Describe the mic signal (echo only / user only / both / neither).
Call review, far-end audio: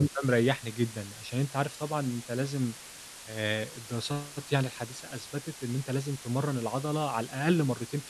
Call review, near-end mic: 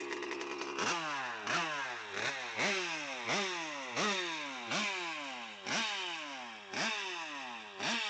neither